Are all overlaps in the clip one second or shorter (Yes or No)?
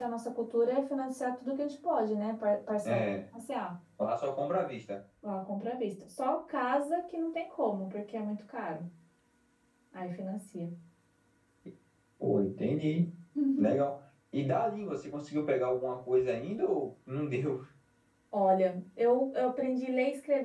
Yes